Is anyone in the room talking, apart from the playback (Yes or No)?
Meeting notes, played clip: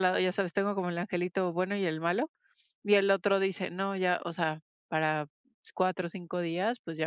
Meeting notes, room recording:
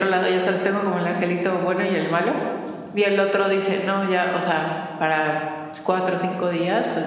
No